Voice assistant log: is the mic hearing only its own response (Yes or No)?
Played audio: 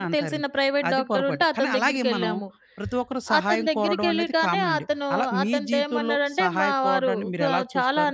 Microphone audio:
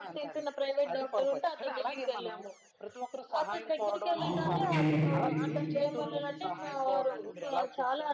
No